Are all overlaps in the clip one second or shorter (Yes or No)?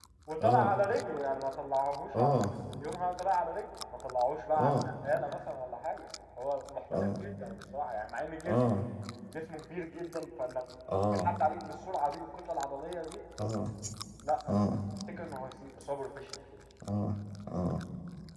Yes